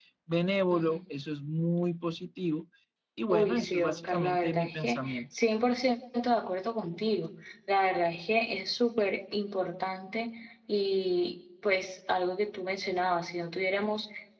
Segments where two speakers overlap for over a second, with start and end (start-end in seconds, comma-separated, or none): 3.3-5.2